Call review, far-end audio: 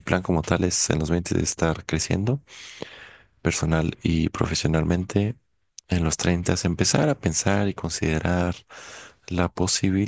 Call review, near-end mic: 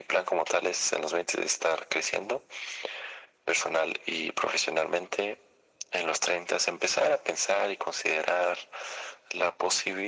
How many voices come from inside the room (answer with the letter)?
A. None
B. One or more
A